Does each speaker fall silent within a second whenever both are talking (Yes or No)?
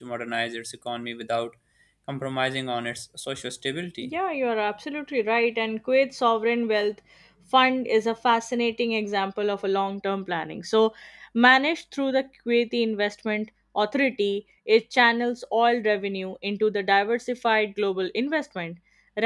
Yes